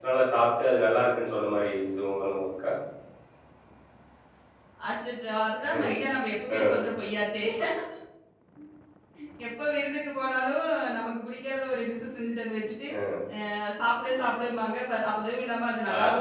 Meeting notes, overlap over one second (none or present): none